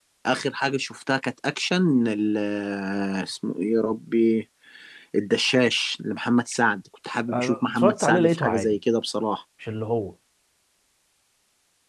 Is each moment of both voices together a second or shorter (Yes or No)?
No